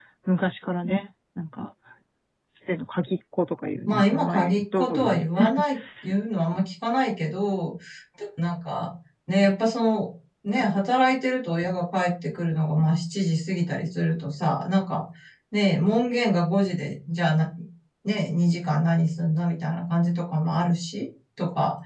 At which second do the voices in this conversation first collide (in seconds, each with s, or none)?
3.9 s